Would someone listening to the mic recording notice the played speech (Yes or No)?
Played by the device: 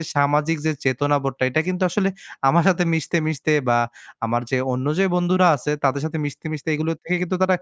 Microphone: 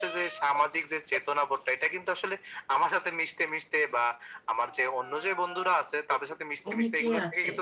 Yes